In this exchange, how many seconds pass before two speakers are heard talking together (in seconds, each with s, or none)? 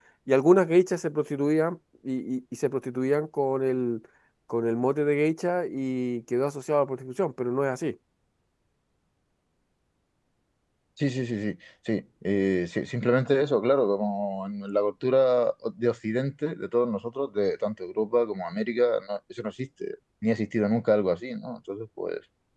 none